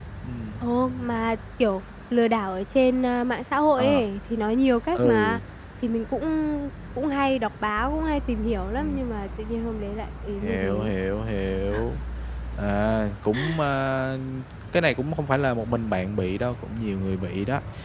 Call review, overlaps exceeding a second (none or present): none